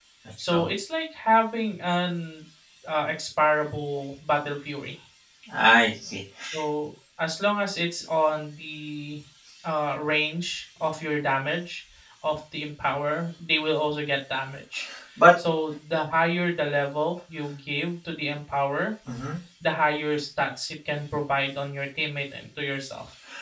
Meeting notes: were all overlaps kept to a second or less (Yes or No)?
Yes